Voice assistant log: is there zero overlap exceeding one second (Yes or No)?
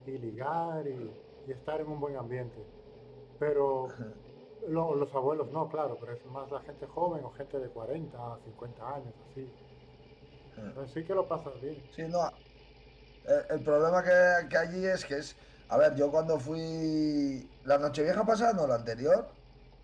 Yes